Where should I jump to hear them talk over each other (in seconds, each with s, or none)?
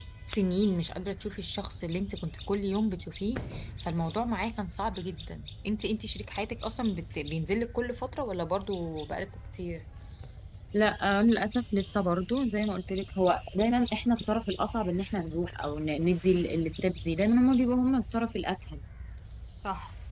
none